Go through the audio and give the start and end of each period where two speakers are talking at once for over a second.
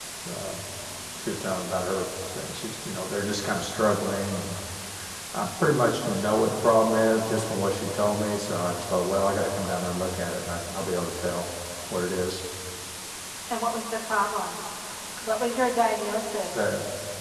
none

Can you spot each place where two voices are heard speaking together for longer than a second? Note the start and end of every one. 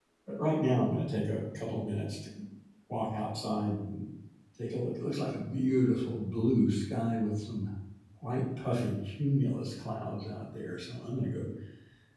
none

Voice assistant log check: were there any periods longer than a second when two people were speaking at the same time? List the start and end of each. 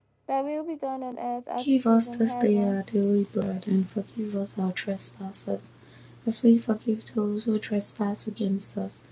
1.6-2.8

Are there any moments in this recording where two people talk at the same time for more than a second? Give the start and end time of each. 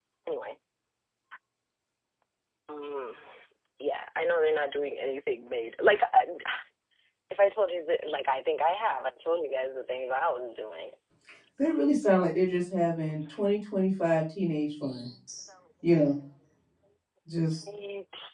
none

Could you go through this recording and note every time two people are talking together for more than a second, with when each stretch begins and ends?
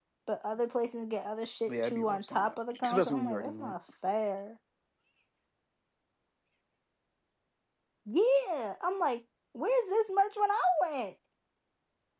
1.7-3.7

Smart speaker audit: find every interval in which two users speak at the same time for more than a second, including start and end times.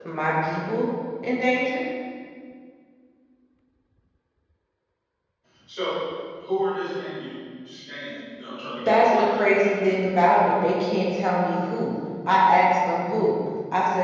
8.9-10.2

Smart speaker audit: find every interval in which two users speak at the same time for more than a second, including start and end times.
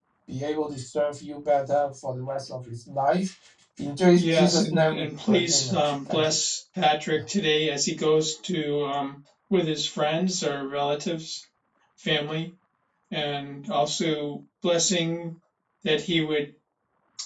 4.2-6.3

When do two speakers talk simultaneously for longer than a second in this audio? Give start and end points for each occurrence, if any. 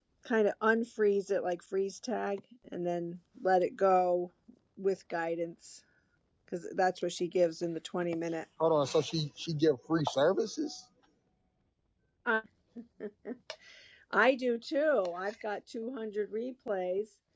none

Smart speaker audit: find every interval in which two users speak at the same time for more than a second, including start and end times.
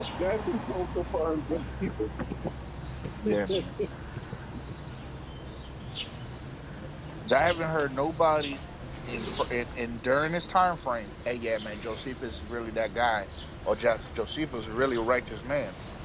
none

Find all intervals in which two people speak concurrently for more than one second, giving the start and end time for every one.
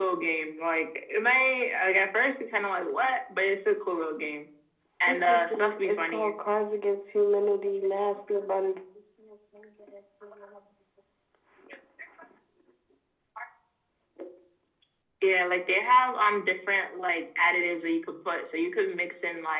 5.1-6.3

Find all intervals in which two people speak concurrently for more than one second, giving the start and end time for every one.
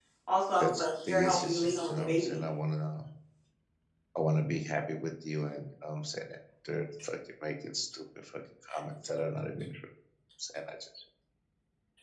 0.6-2.4

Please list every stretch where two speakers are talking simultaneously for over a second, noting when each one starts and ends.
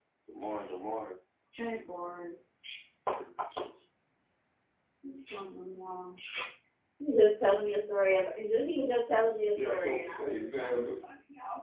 9.6-10.9

